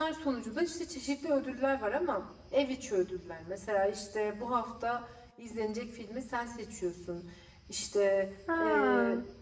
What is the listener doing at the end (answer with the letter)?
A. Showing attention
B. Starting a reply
A